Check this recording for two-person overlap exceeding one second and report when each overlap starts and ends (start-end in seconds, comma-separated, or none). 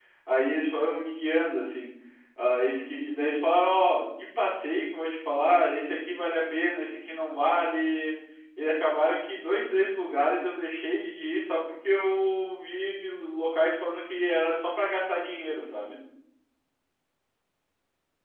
none